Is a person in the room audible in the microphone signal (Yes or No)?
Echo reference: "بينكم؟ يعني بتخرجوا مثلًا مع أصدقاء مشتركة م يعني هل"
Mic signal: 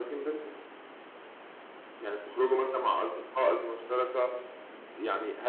No